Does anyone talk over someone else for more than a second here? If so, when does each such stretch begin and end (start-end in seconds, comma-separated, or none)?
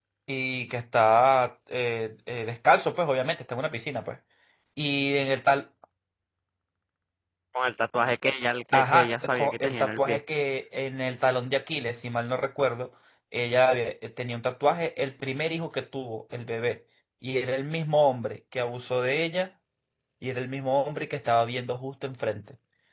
8.7-10.2